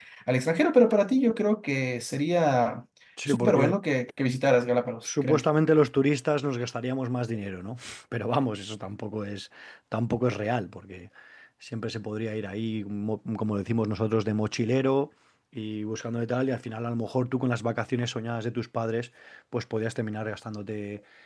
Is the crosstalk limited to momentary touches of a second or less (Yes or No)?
Yes